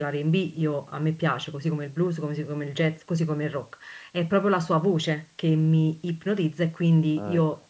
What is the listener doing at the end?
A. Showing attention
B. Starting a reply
A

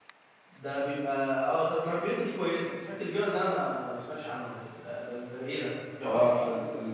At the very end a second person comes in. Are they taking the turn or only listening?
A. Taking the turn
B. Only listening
A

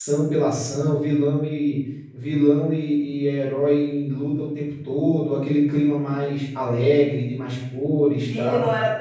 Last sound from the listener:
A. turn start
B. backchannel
A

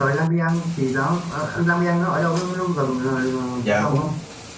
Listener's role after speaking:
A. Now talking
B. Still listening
A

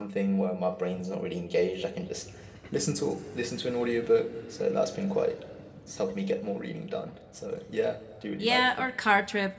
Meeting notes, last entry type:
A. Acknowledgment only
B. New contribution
B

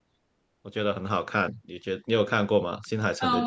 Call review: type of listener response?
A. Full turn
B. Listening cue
A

